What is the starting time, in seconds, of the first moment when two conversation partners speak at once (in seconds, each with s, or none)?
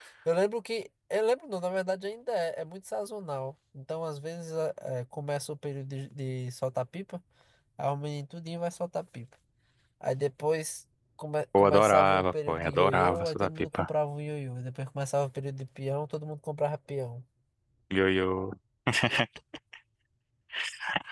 11.5 s